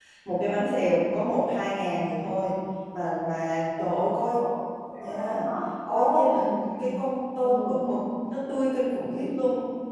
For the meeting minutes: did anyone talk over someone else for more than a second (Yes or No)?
No